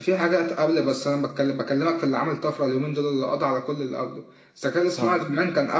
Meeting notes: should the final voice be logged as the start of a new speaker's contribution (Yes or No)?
No